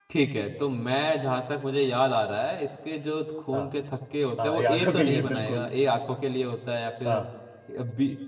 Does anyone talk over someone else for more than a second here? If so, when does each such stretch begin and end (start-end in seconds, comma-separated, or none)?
4.4-5.7